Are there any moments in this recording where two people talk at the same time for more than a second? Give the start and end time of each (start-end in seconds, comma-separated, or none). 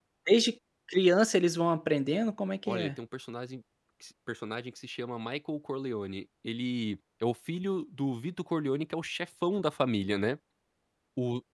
none